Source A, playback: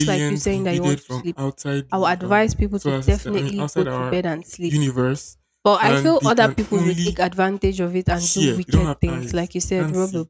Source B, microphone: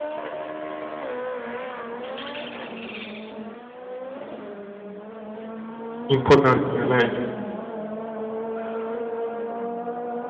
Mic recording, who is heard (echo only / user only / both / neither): user only